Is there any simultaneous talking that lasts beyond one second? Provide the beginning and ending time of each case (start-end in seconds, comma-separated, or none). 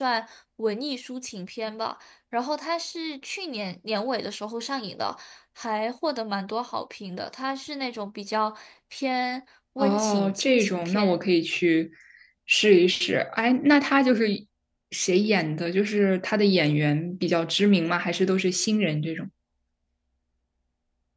9.8-11.2